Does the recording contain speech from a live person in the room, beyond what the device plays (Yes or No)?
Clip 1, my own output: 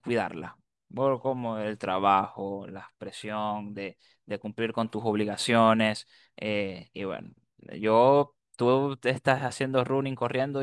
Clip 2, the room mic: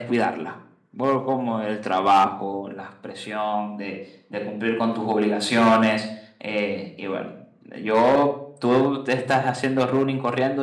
No